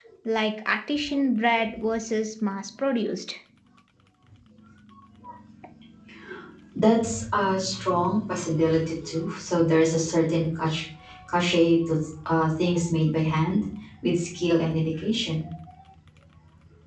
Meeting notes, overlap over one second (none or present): none